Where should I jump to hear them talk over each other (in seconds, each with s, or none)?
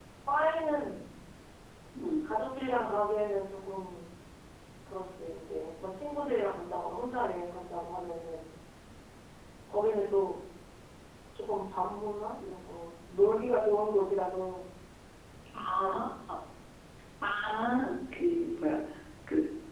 none